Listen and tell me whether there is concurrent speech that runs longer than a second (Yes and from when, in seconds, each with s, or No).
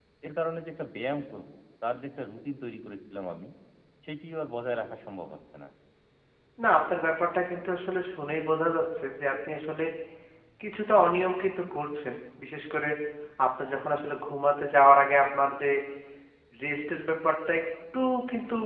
No